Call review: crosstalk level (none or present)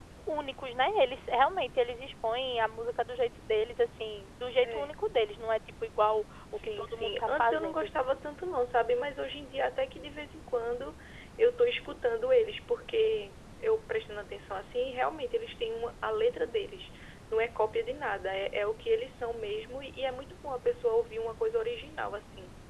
present